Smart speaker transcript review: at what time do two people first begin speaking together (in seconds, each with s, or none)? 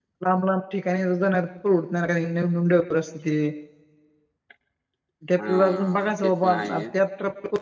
5.5 s